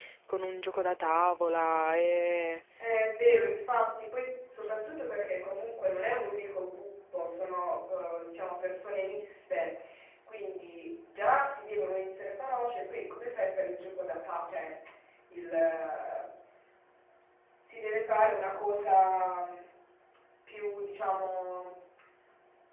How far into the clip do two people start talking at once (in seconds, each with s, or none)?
none